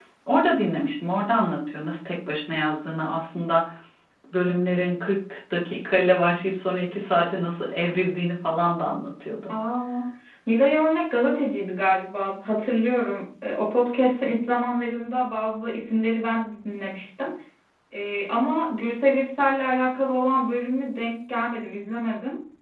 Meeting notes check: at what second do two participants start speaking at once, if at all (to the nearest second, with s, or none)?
none